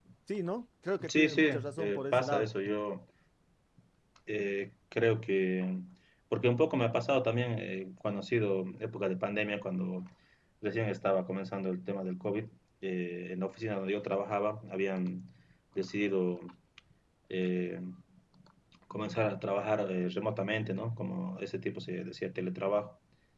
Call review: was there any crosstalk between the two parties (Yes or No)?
Yes